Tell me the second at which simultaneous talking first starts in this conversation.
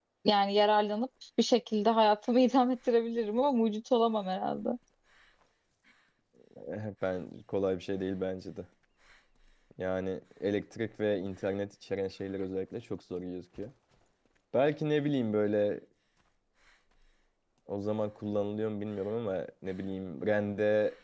none

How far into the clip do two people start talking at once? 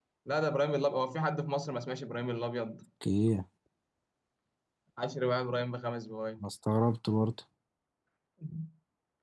none

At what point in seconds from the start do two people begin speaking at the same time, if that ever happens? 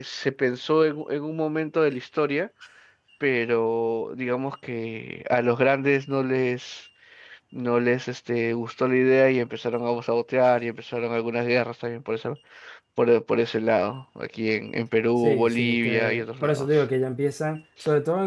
15.2 s

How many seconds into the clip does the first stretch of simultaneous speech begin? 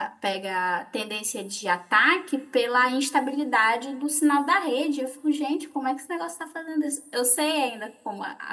none

